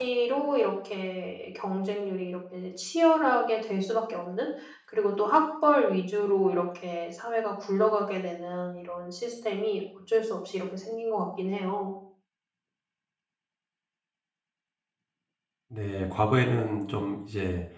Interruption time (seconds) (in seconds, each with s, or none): none